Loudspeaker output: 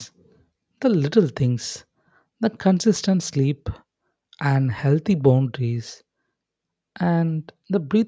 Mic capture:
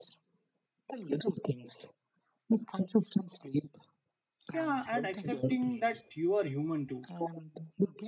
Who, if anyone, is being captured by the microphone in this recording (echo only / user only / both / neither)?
both